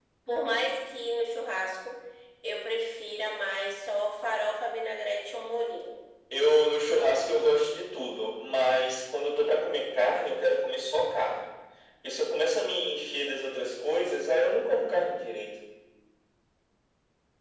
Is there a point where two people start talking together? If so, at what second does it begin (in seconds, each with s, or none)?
none